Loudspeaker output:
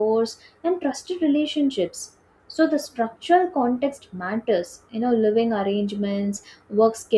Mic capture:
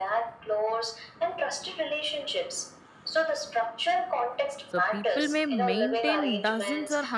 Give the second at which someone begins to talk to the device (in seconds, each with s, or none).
4.6 s